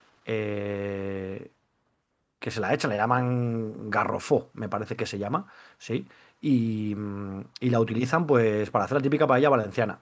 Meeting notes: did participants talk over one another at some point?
No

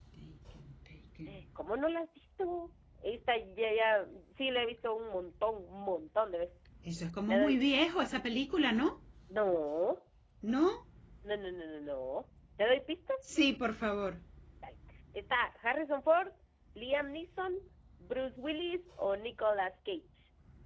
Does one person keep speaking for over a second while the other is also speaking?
No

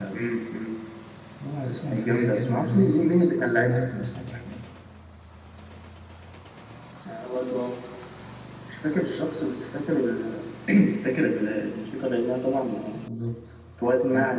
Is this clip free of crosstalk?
No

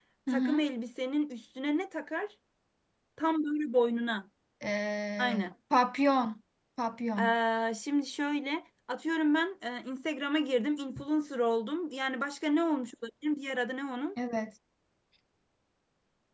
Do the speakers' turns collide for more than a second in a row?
No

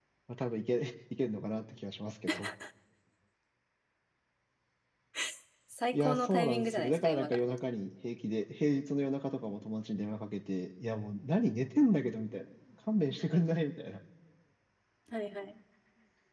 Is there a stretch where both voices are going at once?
Yes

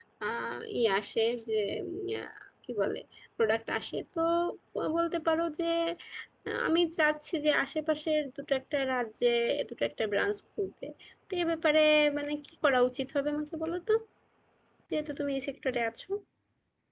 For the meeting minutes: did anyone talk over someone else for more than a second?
No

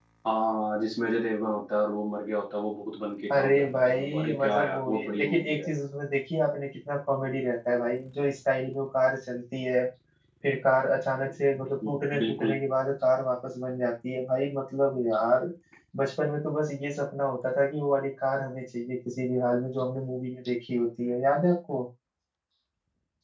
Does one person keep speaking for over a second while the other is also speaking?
Yes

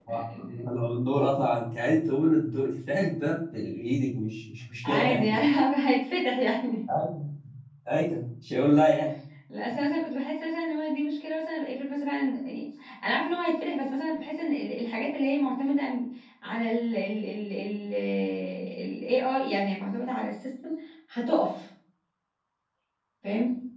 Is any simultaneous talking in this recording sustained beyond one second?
No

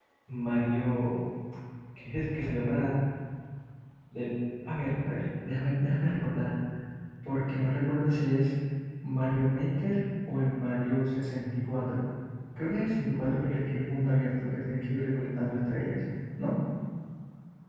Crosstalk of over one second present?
No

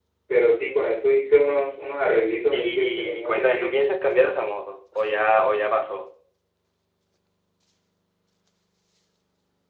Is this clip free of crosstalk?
No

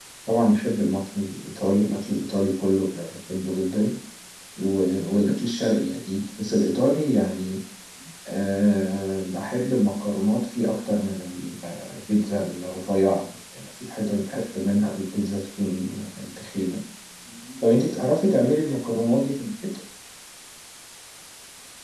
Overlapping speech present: No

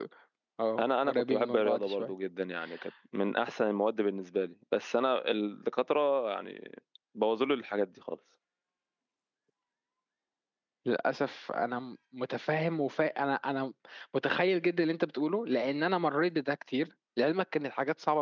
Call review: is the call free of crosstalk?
No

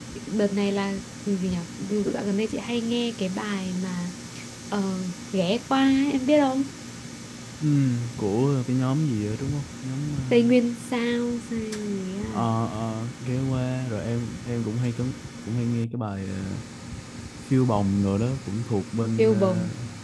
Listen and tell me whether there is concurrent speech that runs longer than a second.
No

